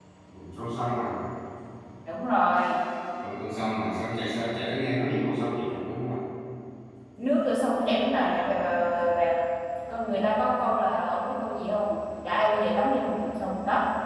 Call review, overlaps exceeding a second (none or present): none